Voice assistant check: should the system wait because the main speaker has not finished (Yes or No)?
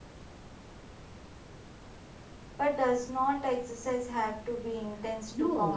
No